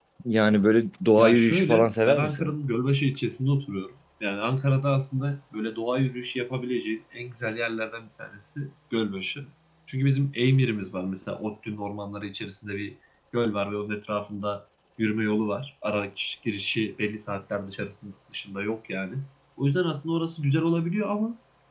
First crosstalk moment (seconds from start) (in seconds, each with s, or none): 1.2 s